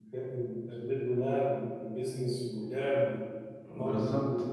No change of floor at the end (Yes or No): No